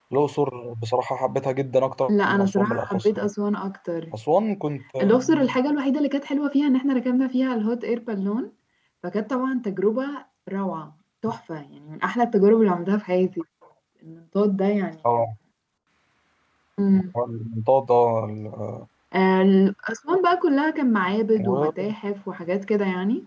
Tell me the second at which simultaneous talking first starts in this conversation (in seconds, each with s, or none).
2.1 s